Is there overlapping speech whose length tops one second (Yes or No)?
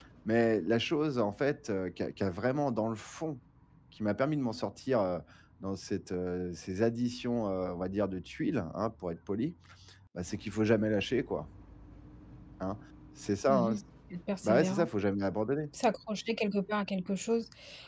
No